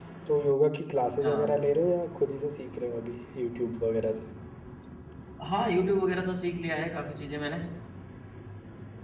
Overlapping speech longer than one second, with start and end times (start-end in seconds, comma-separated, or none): none